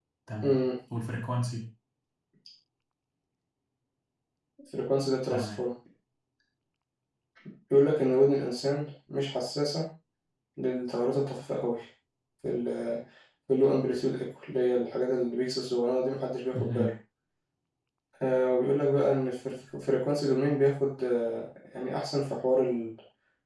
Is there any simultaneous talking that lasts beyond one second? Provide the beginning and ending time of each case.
none

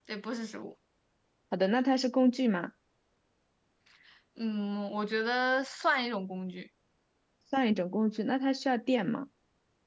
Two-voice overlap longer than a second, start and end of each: none

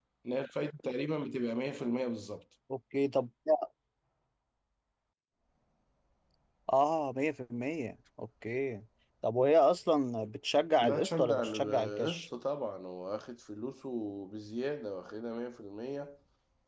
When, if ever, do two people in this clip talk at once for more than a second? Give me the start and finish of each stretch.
10.8-12.3

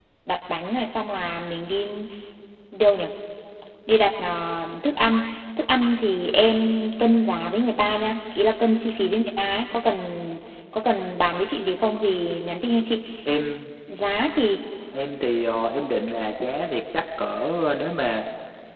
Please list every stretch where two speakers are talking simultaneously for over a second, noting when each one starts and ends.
none

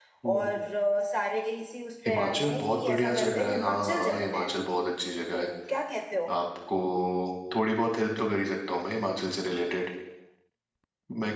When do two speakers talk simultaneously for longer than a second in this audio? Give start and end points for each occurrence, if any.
2.0-4.5

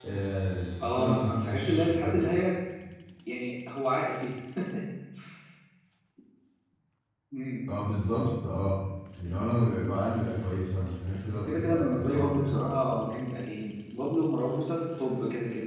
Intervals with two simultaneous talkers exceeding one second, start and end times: 0.8-2.3, 11.2-12.6

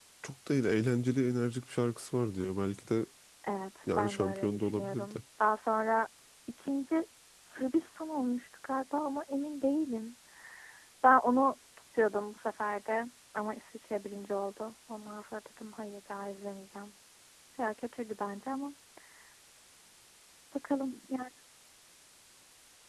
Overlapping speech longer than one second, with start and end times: 4.0-5.2

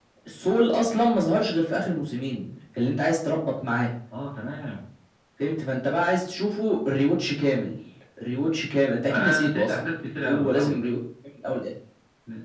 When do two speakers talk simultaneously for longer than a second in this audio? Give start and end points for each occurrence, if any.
9.1-10.8

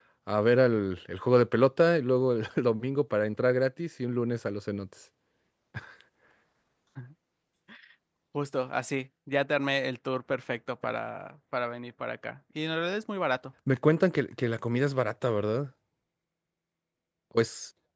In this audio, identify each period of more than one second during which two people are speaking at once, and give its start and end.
none

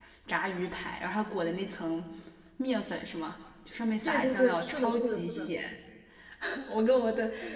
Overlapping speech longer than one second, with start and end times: 4.0-5.5

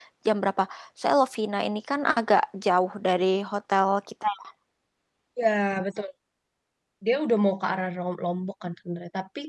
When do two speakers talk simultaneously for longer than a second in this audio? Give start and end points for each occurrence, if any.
none

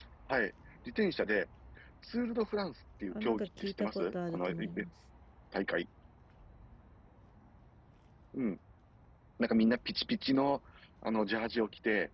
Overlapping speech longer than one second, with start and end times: 3.1-4.8

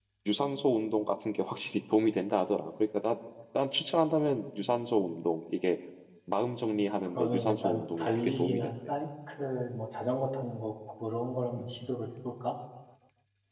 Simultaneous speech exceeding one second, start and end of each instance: 7.1-8.7

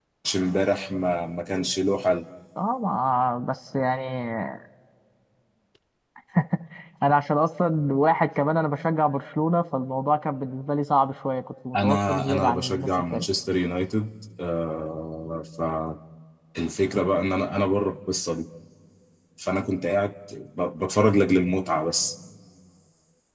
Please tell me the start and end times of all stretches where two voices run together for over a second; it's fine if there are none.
11.8-13.3

